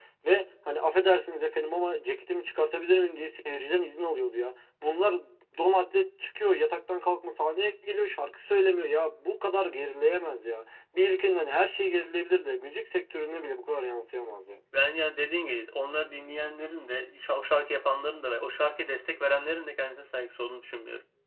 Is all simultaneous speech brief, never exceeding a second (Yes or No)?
Yes